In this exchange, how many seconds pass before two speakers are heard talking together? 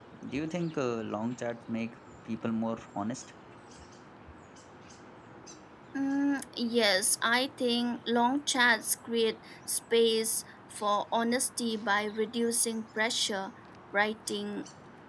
none

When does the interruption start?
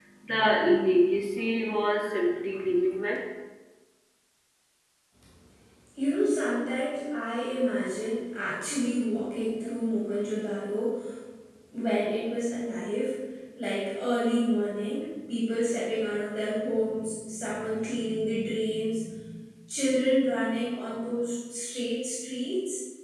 none

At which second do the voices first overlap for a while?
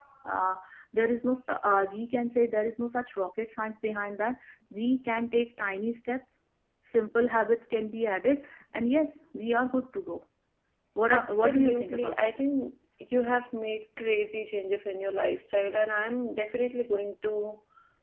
11.1 s

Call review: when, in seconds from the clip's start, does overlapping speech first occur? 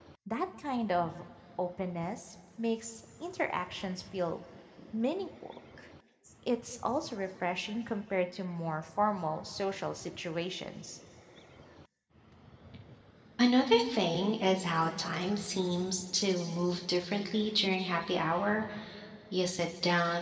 none

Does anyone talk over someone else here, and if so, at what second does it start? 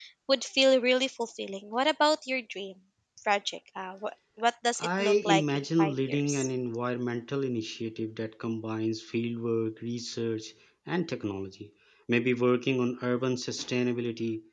4.8 s

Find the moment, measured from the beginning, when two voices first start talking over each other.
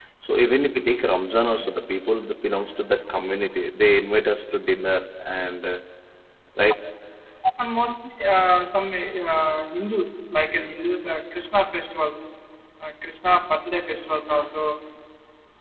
none

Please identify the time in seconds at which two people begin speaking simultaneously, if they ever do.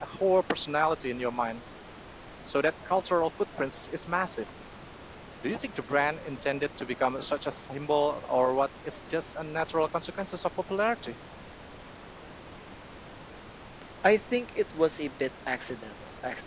none

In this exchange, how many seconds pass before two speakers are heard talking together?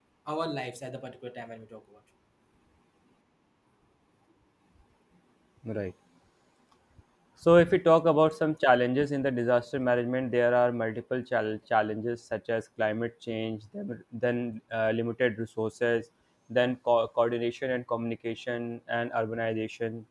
none

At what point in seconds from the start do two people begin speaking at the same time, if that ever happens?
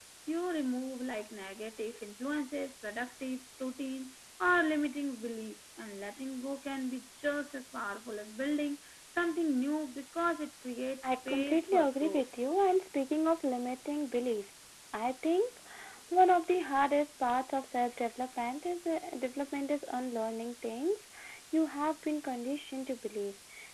11.0 s

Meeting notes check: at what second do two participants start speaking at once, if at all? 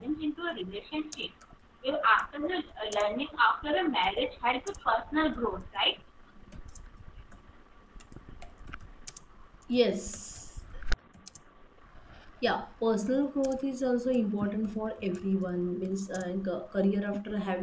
none

